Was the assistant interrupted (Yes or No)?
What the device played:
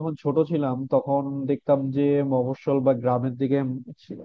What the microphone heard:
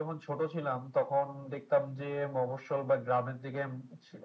No